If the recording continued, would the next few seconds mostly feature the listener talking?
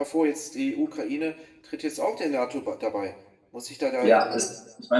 Yes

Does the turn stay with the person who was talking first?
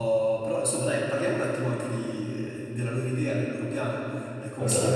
Yes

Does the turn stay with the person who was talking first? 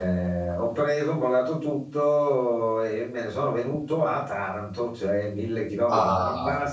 Yes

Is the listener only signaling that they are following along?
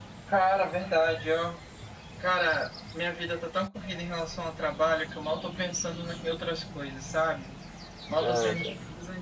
Yes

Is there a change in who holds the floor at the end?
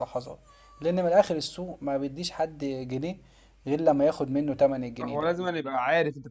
Yes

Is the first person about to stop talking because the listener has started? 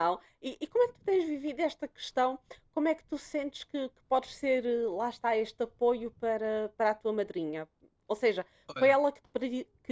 No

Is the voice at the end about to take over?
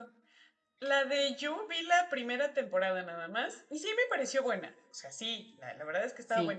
No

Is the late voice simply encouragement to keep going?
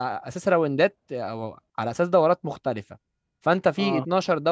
Yes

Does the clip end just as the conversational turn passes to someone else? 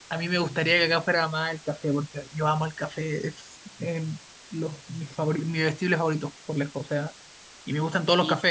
No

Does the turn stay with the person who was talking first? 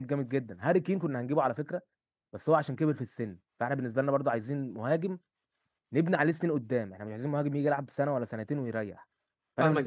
No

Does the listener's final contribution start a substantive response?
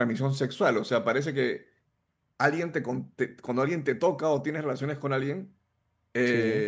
No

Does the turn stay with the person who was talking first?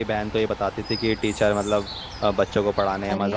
Yes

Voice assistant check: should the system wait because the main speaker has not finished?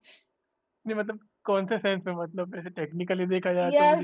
No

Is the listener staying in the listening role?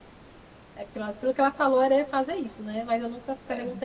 Yes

